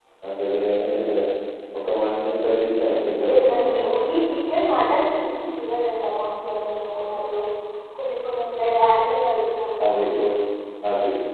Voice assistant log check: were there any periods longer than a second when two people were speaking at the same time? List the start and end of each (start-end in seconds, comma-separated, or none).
none